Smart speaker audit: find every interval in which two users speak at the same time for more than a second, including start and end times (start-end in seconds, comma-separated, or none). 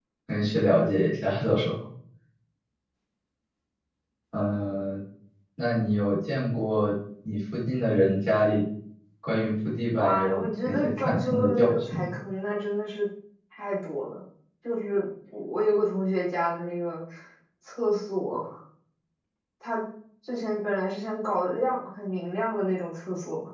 10.0-12.1